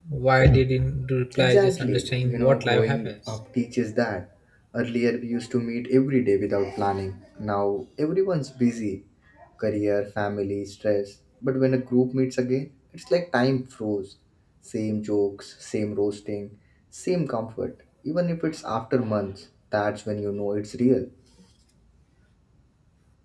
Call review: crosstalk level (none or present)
present